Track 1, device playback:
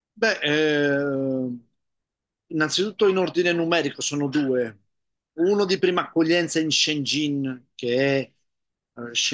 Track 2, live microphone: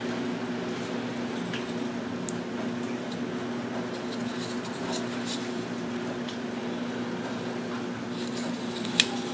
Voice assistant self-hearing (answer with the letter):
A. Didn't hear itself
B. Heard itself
A